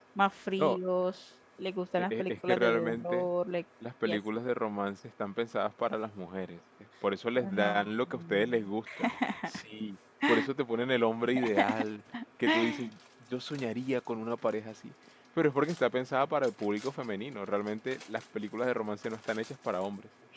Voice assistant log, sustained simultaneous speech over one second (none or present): present